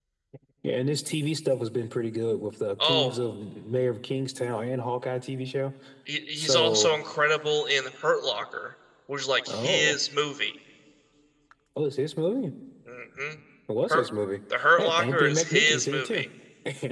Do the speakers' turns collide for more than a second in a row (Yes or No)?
Yes